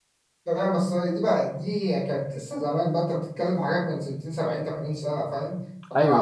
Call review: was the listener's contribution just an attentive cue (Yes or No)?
Yes